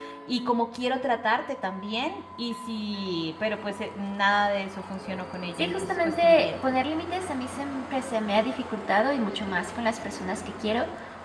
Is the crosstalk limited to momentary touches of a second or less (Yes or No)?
No